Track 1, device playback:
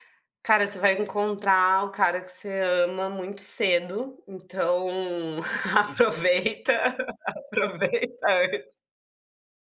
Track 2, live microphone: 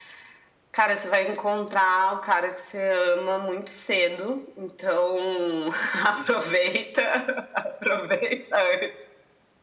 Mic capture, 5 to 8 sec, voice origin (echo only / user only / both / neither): echo only